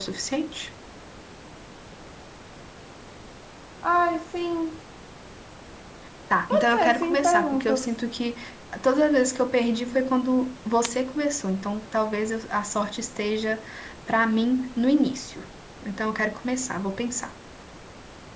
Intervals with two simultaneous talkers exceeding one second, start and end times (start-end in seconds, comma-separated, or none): 6.5-7.9